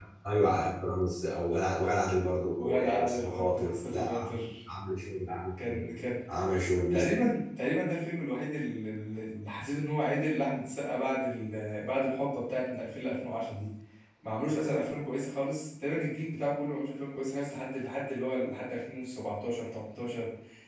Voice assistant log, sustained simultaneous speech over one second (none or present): present